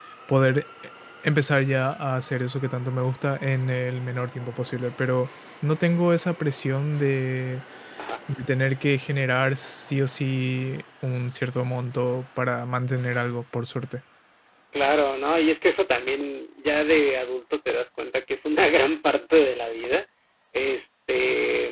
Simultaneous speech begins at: none

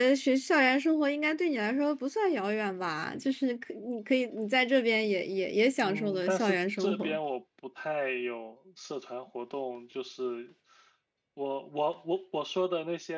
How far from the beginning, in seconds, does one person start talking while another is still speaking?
5.8 s

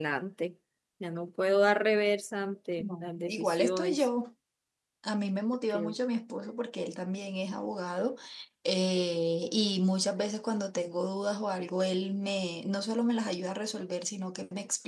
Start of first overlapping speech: 2.8 s

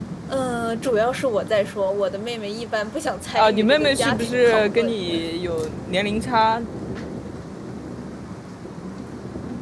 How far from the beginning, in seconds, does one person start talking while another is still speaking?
3.3 s

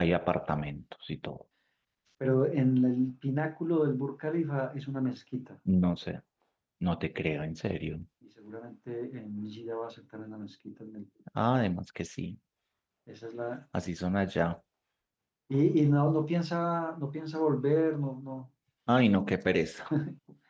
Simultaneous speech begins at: none

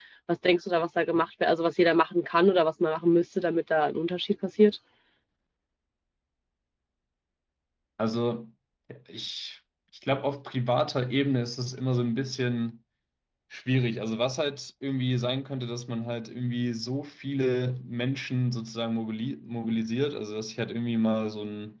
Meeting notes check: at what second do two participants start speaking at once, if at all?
none

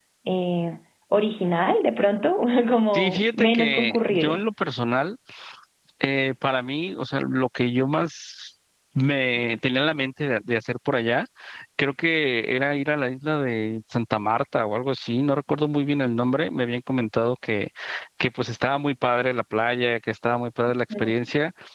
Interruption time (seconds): 2.9 s

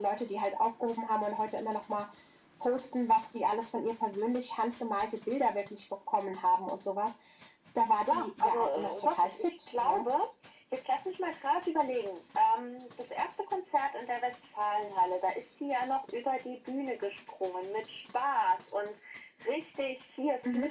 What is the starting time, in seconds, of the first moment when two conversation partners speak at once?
8.1 s

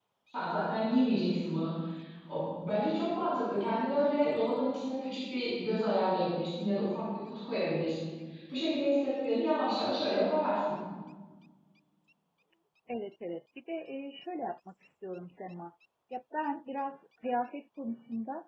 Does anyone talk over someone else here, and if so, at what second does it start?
none

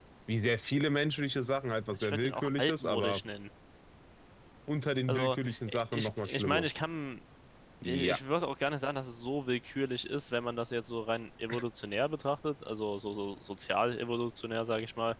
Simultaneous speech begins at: 2.0 s

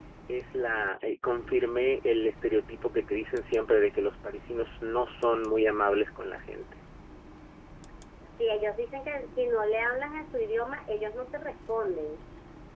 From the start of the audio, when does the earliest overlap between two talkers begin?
none

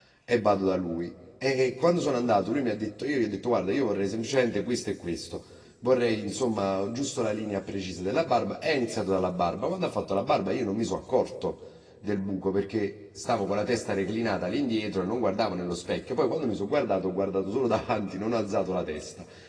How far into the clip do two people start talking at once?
none

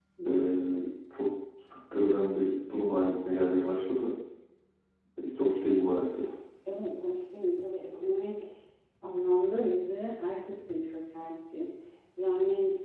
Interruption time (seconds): none

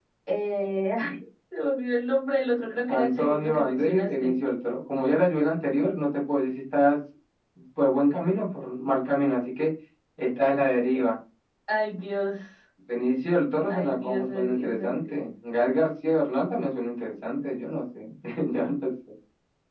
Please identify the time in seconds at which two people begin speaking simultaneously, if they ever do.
2.9 s

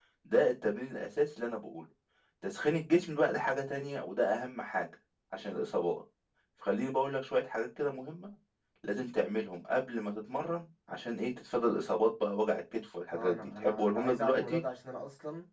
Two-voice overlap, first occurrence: 13.1 s

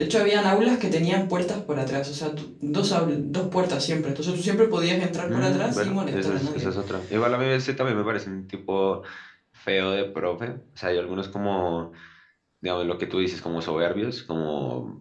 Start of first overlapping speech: 5.3 s

